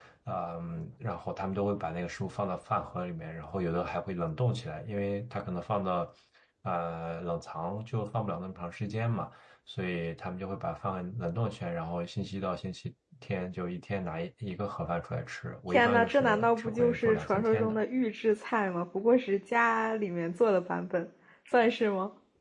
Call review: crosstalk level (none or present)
present